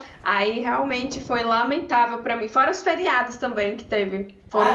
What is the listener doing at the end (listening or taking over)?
taking over